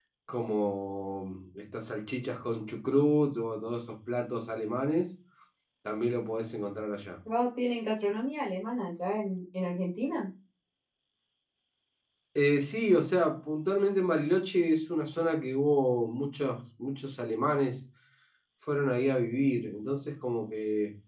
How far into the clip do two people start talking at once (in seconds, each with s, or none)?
none